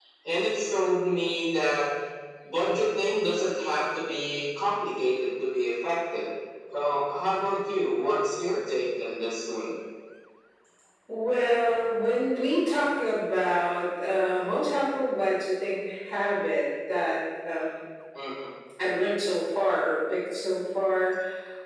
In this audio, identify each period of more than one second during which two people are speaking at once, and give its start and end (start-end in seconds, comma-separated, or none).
none